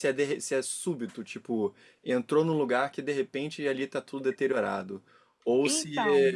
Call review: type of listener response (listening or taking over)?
listening